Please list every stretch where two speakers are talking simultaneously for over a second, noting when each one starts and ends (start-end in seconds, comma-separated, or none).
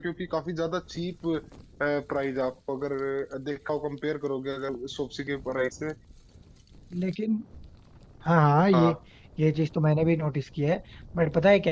none